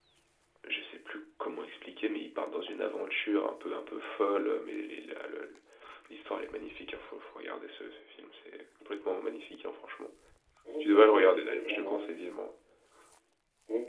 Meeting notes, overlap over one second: present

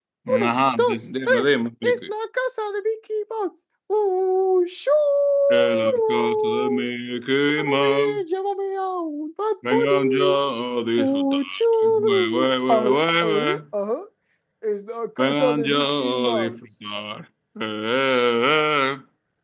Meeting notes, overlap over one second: present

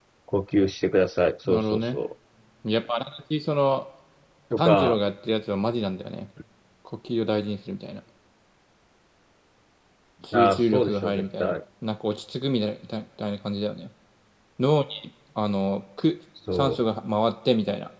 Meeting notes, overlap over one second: present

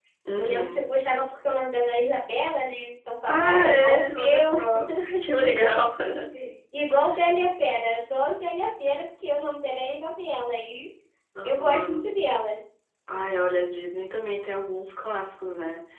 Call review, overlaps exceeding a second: present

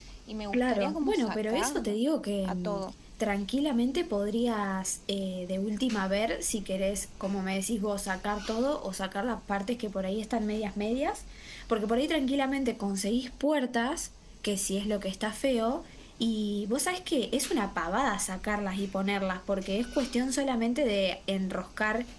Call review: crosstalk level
present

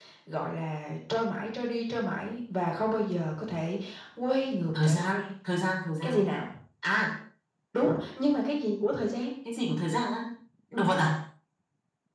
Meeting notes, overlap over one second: none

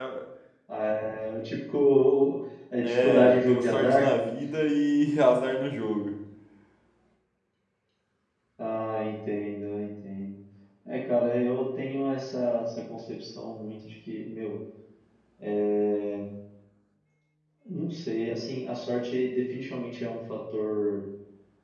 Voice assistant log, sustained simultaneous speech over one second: present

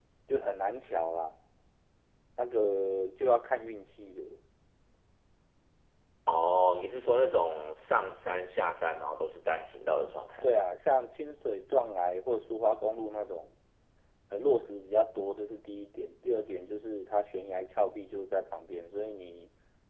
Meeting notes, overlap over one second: none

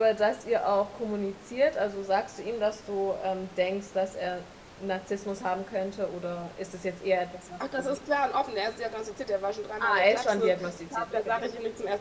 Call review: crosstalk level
present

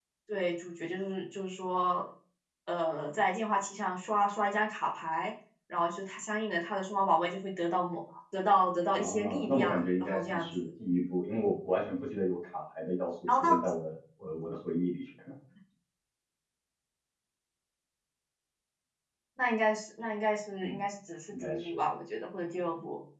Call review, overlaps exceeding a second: present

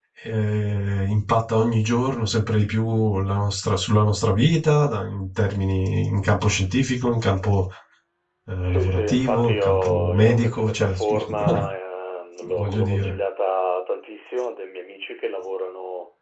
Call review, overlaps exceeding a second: present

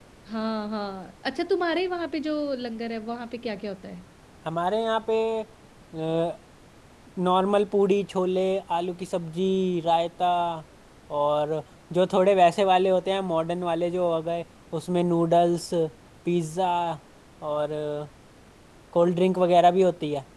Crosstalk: none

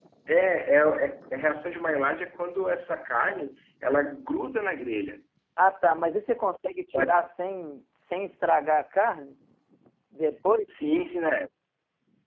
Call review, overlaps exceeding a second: none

